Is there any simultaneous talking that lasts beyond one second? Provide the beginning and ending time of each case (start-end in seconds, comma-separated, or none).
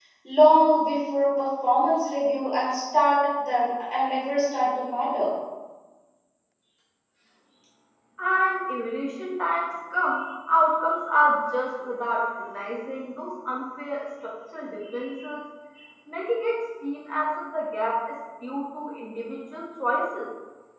none